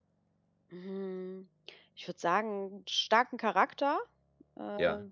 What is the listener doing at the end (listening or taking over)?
listening